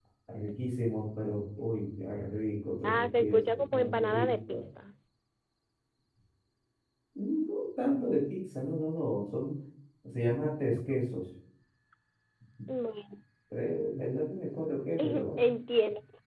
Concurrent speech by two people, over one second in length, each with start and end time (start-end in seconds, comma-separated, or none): 2.8-4.6